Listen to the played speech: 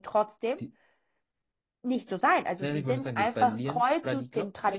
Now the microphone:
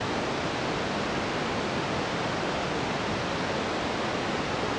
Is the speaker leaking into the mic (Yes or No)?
No